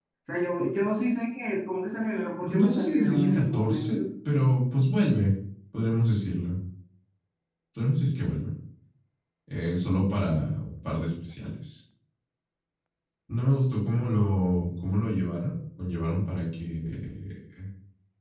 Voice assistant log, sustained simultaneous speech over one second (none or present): present